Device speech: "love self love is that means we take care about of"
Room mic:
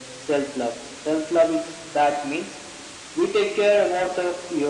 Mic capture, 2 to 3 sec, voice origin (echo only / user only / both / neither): echo only